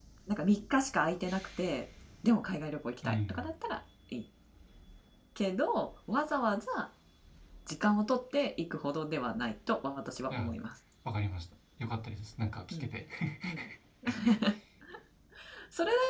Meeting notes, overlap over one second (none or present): none